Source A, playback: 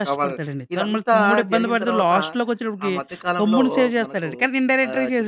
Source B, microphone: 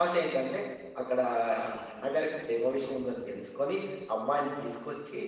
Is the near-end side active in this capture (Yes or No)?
Yes